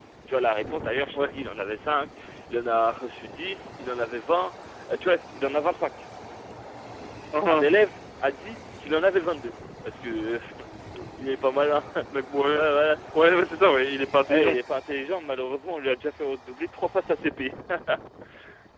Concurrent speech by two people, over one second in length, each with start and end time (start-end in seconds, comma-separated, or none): none